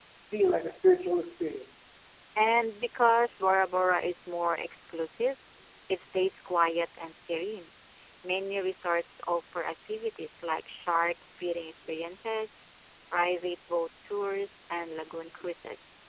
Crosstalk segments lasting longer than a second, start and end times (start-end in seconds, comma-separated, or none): none